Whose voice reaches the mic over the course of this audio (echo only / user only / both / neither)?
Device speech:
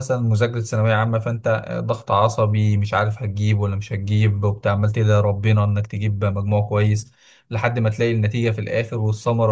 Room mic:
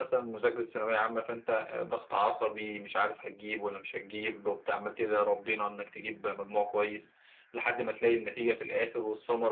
echo only